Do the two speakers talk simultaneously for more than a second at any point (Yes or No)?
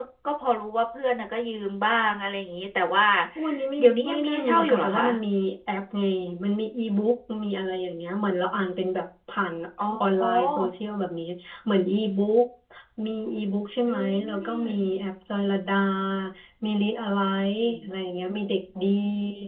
Yes